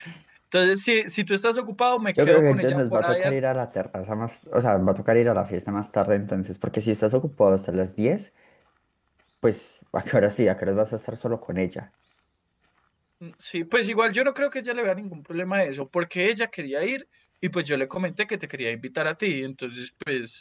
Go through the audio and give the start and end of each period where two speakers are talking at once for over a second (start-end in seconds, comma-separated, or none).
2.2-3.4